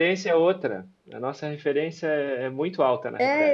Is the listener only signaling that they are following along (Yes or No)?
No